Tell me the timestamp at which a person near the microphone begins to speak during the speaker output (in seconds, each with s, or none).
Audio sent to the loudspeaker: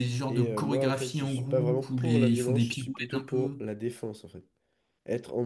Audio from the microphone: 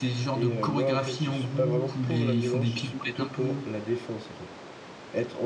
none